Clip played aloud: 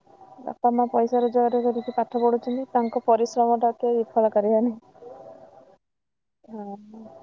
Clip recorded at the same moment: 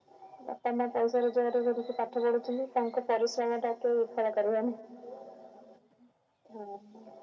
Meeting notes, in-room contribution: none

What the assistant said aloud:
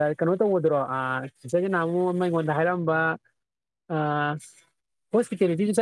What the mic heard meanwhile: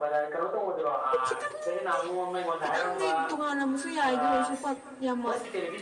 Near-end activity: present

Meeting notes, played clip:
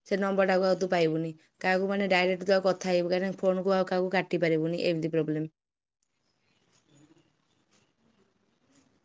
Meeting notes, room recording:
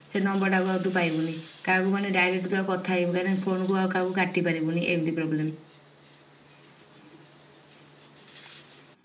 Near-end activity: none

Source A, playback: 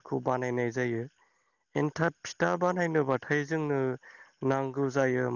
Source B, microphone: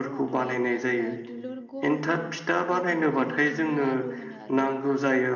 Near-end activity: present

